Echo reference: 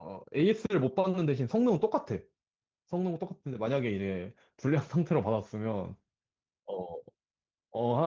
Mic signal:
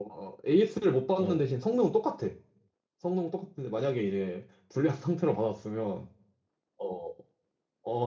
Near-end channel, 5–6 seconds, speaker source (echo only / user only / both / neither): echo only